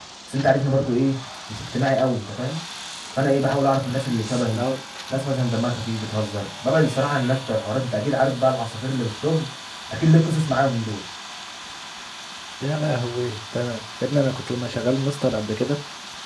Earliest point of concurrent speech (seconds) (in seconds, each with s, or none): none